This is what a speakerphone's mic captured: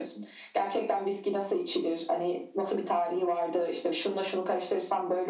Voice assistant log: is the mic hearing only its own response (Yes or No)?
Yes